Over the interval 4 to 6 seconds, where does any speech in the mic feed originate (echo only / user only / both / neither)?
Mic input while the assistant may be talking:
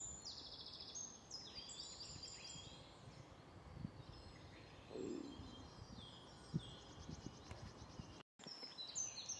neither